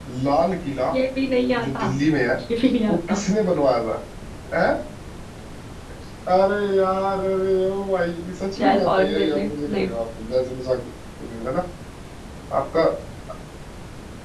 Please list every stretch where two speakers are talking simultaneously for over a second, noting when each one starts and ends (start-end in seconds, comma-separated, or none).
8.6-9.9